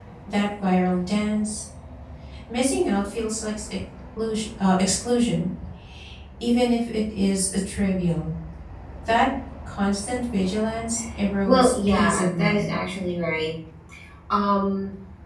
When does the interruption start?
11.5 s

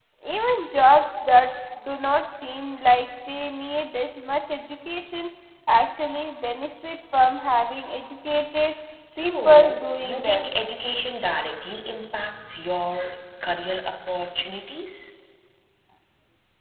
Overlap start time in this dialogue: 9.2 s

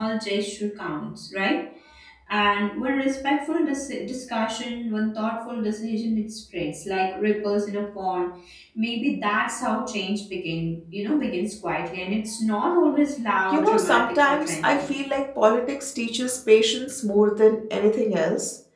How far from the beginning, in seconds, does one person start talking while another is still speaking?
13.5 s

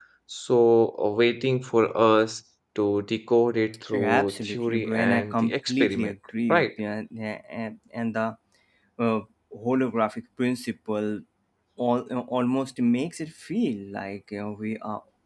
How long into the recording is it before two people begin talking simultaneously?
3.9 s

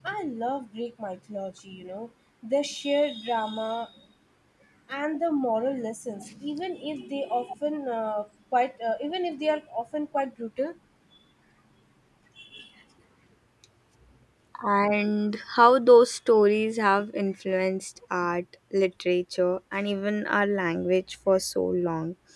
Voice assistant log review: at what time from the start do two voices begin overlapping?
none

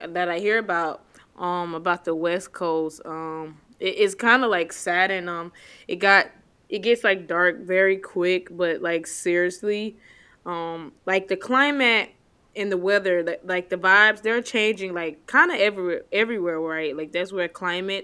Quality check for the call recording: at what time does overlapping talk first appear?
none

